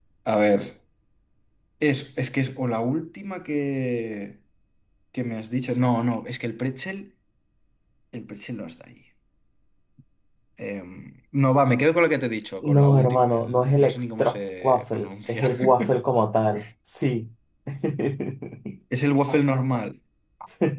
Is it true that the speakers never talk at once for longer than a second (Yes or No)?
No